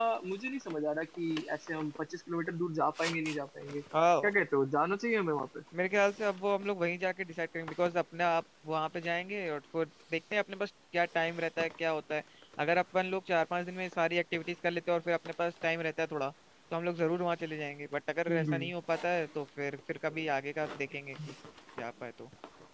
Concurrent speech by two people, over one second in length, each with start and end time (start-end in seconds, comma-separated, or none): none